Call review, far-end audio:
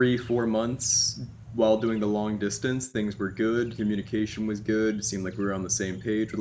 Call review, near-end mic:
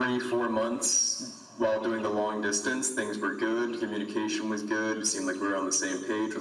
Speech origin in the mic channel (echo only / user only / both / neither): echo only